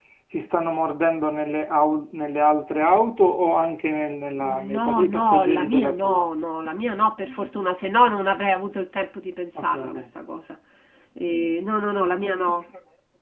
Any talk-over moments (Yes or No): Yes